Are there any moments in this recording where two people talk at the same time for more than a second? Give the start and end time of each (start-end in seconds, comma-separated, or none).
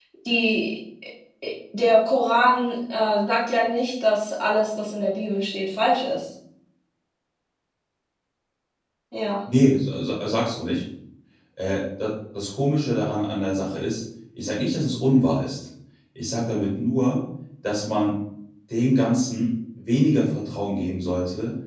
none